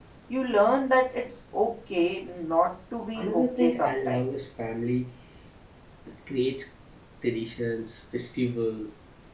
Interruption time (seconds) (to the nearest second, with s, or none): 3 s